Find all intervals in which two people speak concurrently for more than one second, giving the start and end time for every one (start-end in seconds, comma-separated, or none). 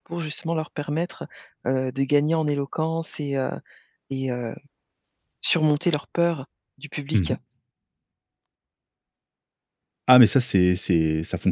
none